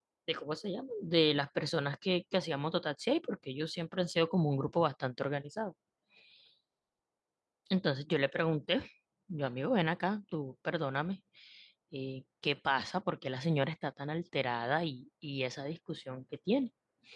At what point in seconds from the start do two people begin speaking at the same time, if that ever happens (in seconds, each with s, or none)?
none